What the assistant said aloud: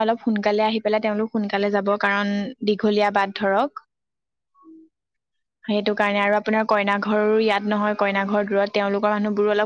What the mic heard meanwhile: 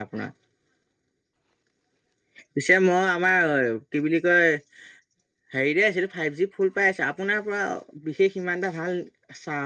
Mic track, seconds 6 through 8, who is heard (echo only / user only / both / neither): user only